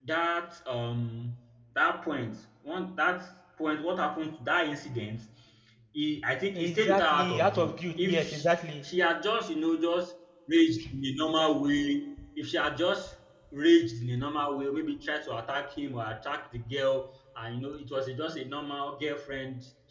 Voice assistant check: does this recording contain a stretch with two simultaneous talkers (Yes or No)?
Yes